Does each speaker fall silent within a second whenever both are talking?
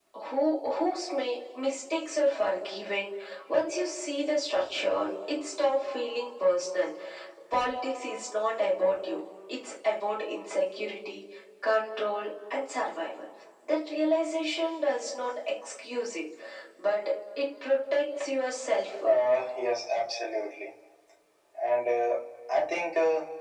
Yes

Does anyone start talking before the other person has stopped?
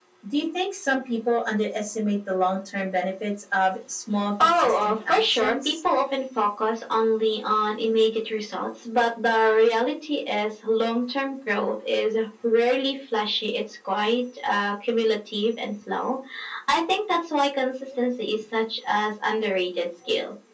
Yes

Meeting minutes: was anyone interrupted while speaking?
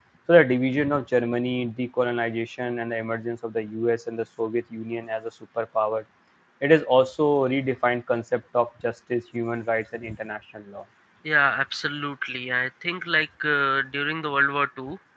No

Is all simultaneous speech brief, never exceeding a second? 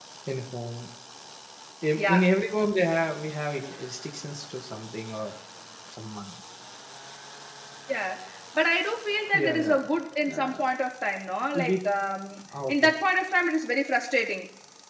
Yes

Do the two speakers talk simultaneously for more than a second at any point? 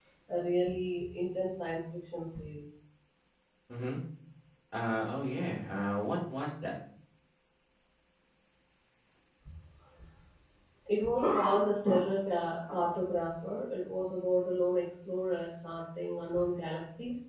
No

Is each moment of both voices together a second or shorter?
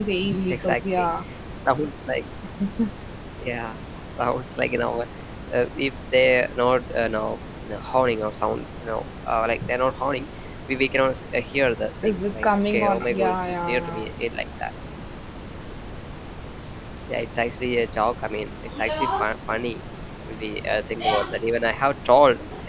No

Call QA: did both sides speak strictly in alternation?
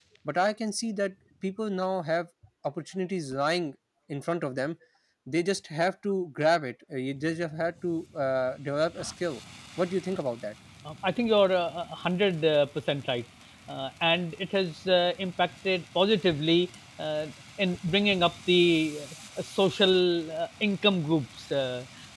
Yes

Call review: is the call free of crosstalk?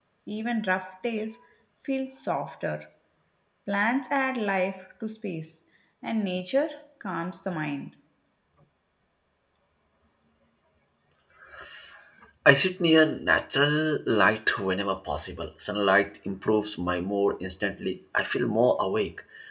Yes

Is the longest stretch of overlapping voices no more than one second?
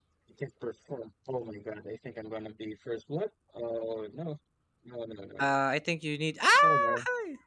Yes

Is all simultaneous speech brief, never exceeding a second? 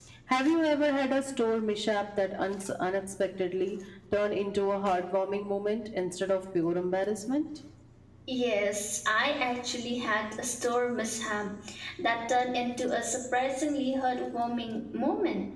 Yes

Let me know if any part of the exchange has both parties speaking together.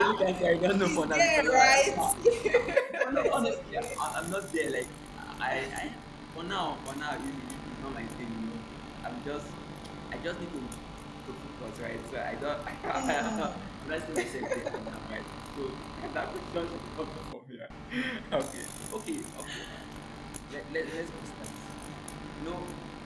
Yes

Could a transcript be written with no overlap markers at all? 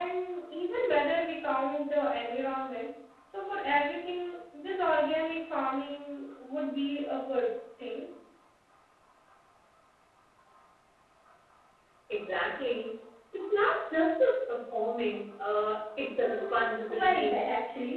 No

